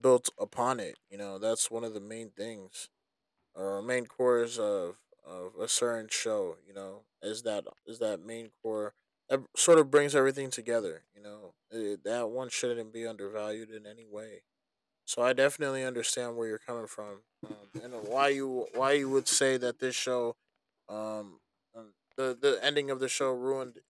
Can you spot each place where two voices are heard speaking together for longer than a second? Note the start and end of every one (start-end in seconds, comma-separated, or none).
none